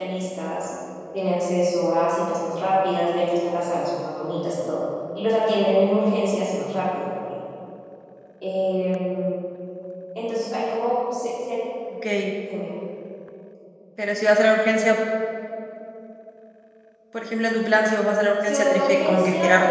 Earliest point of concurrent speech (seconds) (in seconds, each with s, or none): 18.4 s